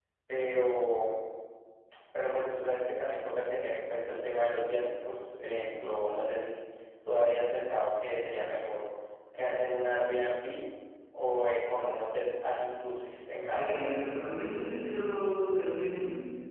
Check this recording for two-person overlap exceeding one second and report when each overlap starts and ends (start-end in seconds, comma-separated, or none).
none